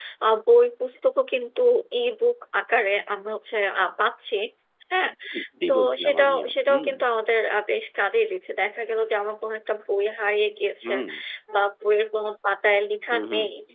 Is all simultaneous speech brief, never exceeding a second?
No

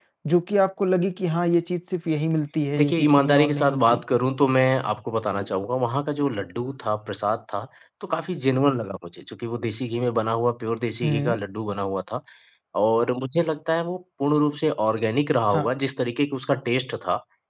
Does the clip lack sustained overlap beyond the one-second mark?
No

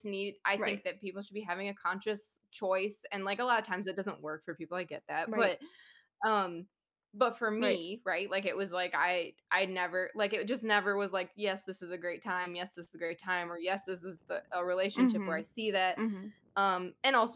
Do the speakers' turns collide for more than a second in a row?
No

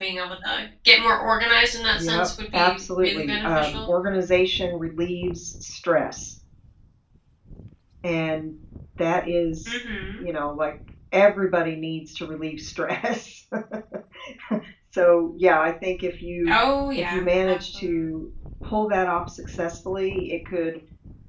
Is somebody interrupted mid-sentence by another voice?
Yes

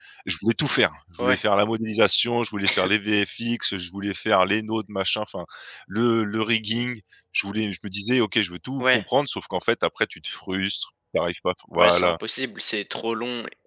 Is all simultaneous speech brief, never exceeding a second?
Yes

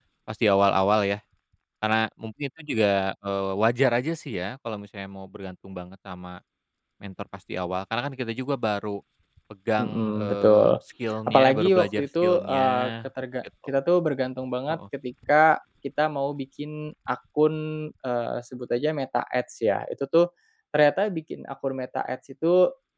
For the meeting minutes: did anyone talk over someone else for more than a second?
Yes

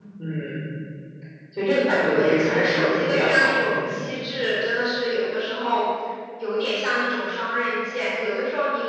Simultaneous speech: Yes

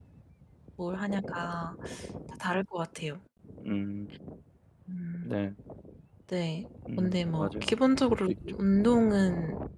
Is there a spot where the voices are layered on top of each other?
Yes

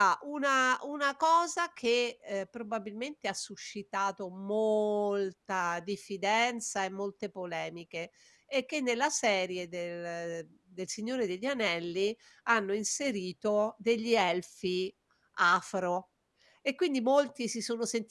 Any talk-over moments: No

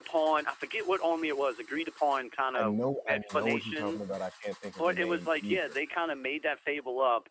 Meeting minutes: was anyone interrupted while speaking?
Yes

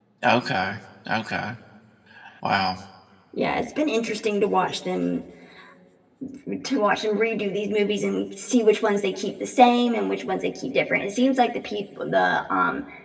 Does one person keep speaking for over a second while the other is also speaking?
No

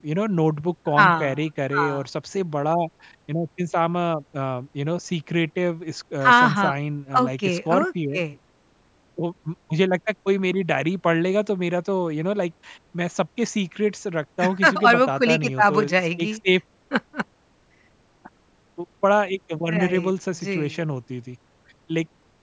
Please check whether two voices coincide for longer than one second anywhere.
Yes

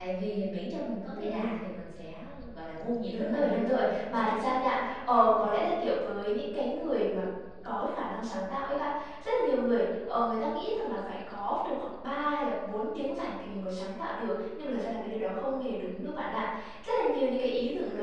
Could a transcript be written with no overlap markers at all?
No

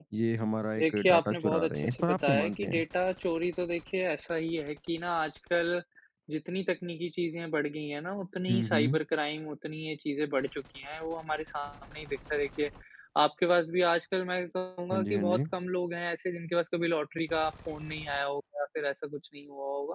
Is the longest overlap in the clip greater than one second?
Yes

